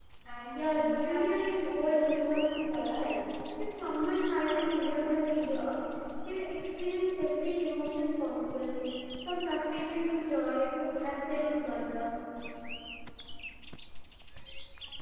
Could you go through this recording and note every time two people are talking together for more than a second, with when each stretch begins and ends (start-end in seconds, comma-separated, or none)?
0.5-3.2